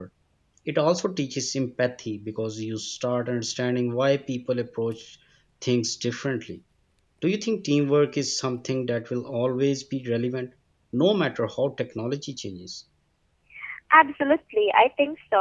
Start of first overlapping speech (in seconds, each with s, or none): none